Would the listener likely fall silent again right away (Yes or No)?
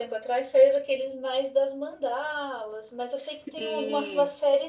Yes